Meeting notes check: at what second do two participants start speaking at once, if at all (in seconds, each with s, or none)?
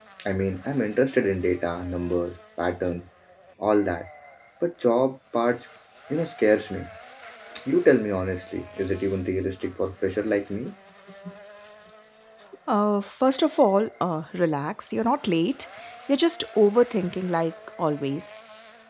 none